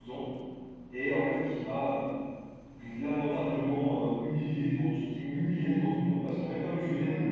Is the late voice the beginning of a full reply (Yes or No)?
No